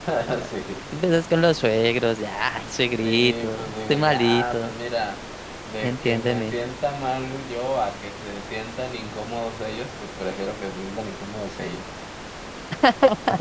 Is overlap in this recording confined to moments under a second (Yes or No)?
No